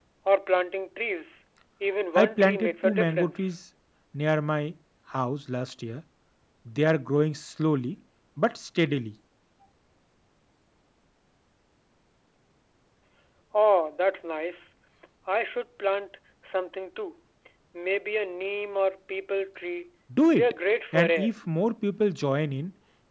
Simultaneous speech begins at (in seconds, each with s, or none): 2.1 s